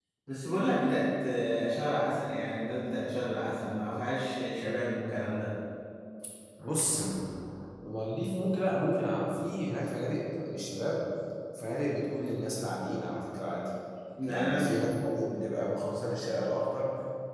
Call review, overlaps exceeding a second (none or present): none